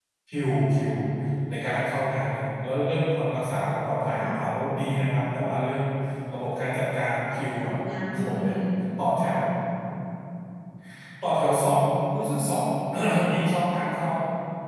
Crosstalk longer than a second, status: none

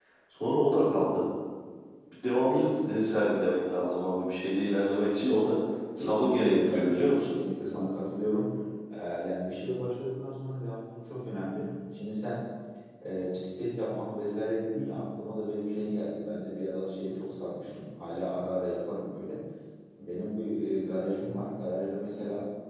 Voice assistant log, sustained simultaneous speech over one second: present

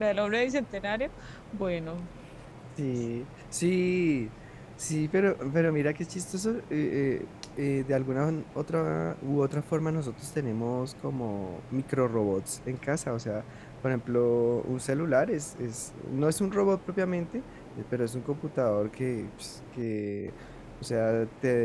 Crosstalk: none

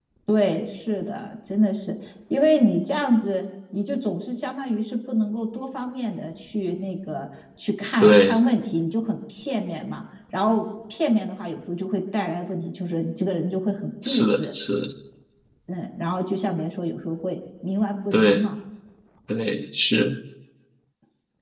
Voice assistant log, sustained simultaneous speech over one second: none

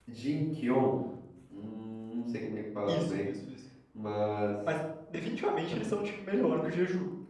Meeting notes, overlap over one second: none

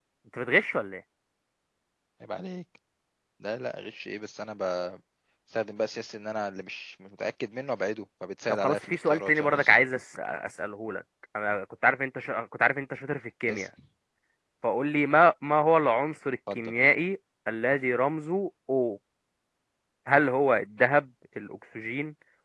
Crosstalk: present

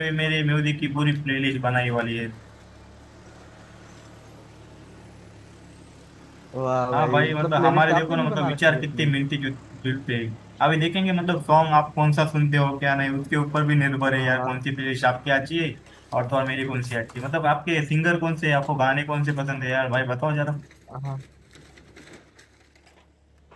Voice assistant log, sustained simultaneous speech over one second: present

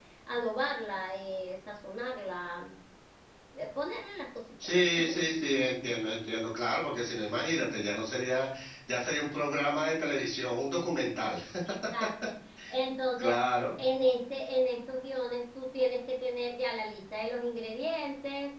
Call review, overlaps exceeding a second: none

